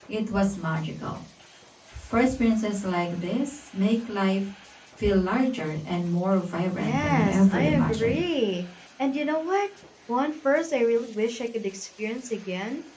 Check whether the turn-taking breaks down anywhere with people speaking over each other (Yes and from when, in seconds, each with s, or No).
Yes, from 6.8 s